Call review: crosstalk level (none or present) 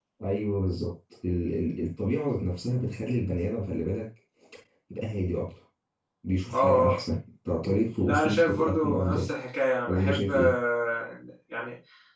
present